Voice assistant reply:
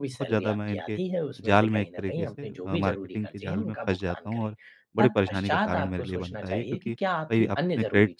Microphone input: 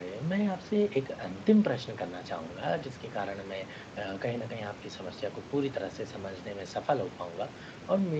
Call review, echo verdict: none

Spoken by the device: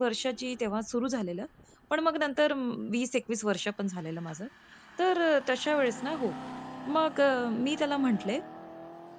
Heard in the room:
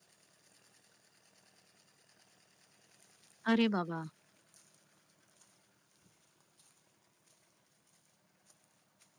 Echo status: none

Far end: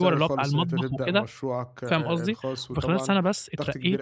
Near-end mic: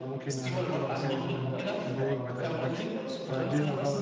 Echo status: present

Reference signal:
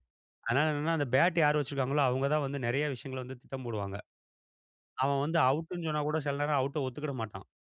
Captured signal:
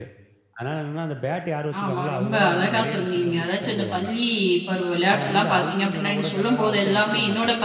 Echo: present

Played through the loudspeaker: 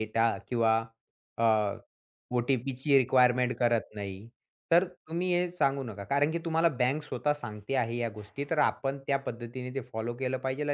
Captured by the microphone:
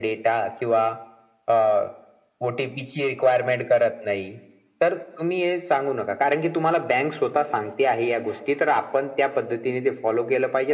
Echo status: present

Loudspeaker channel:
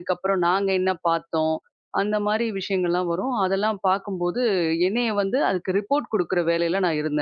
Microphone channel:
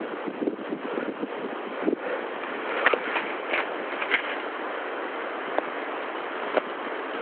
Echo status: none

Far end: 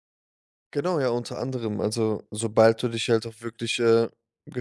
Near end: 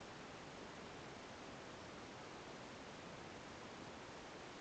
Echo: none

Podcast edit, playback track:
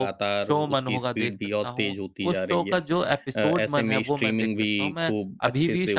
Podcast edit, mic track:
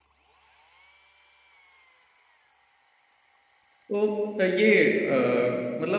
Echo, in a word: none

